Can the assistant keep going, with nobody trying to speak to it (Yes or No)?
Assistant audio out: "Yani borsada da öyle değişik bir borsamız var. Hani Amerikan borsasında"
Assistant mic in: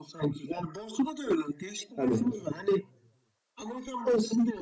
No